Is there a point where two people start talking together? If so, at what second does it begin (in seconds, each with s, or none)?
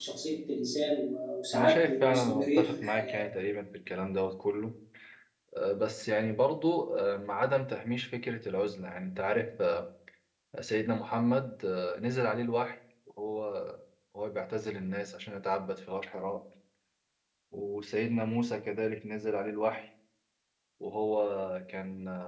1.5 s